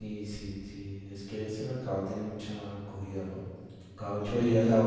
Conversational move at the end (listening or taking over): listening